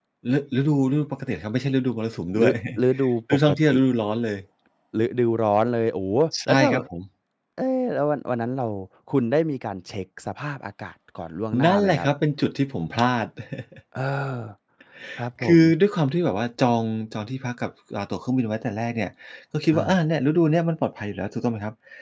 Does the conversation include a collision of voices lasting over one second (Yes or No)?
No